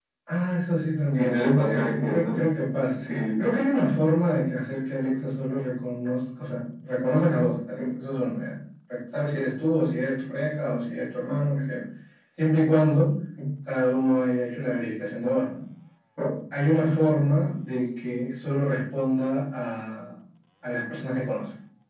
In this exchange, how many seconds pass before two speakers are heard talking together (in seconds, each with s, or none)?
1.1 s